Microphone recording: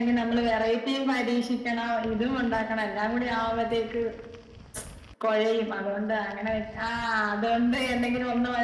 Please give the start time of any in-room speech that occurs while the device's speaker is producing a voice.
none

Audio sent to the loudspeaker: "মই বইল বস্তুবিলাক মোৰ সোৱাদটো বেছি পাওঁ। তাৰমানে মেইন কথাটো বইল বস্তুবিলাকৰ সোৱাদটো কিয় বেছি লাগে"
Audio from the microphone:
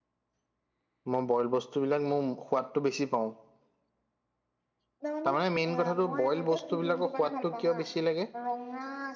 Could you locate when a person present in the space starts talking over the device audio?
5.0 s

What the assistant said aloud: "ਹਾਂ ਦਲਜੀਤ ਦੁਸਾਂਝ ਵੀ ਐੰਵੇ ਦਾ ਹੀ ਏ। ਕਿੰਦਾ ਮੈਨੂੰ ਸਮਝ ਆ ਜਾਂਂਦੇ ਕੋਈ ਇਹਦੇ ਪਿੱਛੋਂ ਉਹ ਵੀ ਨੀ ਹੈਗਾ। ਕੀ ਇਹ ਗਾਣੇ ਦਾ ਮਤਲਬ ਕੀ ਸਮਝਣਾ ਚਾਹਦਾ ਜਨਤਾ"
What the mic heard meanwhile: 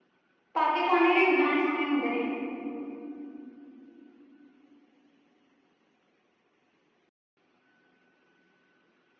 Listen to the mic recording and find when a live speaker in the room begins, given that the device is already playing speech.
0.5 s

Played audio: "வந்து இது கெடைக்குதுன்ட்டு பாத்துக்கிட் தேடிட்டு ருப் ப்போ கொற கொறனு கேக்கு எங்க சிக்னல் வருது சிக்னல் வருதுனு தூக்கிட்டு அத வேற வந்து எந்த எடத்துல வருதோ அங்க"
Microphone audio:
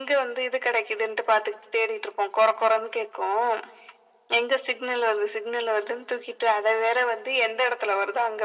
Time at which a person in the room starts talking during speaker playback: none

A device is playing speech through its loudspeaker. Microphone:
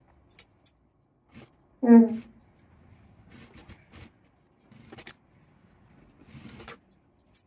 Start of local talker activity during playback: 1.8 s

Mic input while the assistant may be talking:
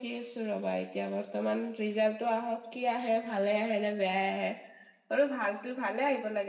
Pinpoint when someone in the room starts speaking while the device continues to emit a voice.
none

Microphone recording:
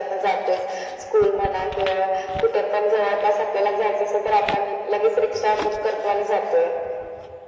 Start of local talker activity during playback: none

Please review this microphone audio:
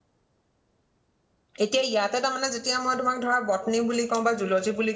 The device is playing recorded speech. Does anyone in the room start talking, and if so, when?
1.6 s

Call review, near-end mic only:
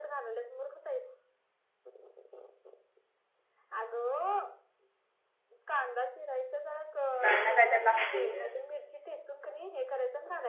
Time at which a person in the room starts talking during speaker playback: 7.2 s

